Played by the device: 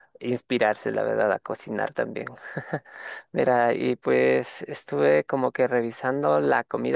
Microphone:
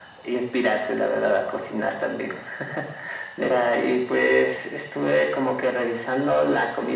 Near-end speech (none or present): none